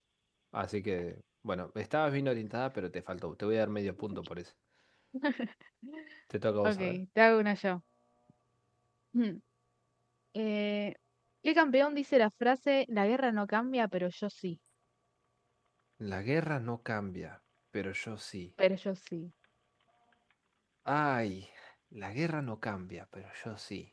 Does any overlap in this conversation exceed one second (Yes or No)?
No